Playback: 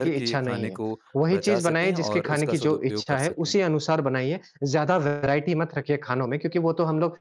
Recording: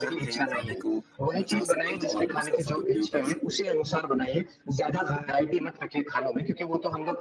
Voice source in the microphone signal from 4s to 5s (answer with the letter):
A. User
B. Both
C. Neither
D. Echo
D